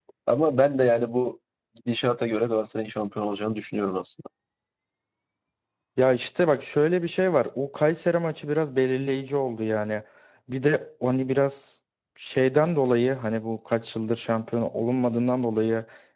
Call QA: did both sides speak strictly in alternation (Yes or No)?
Yes